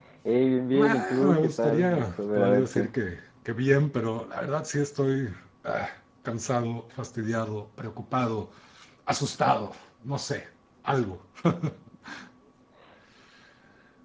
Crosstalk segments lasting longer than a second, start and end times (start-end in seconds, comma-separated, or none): 0.7-2.9